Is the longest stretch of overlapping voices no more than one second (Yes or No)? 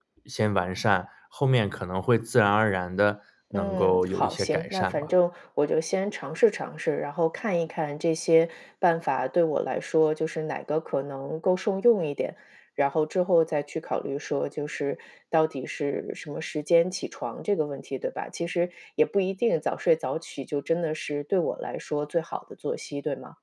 No